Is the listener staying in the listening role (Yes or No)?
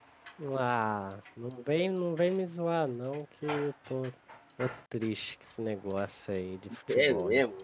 No